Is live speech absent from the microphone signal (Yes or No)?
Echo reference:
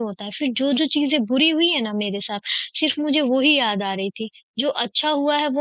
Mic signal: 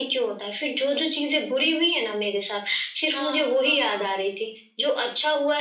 No